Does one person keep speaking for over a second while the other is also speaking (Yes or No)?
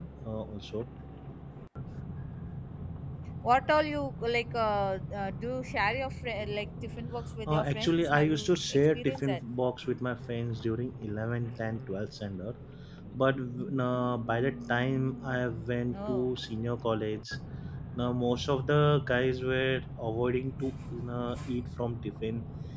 Yes